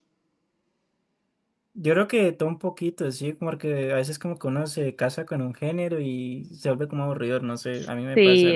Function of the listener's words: taking over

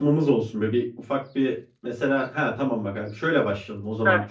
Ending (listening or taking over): listening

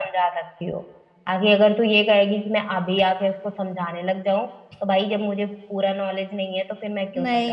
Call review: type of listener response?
taking over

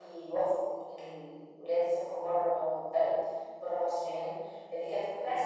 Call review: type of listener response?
listening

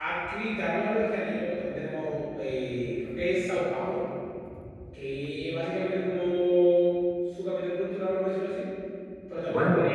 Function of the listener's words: listening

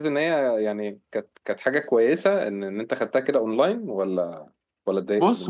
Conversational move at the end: taking over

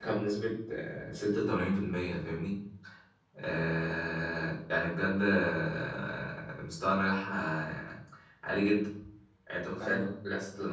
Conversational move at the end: listening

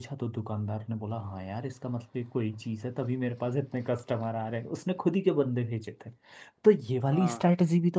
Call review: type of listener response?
listening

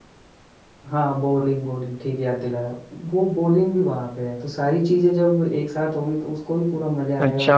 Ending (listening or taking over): taking over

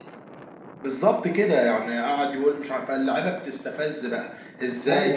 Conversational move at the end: listening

